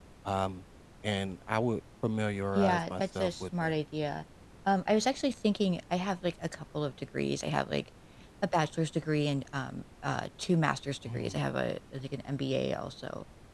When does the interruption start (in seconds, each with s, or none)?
2.6 s